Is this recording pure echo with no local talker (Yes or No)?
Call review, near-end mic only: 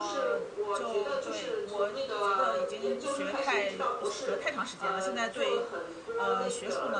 No